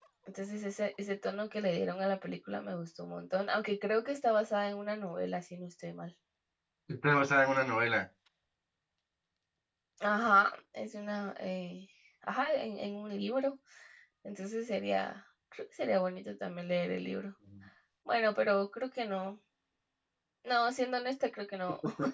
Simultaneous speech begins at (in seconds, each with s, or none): none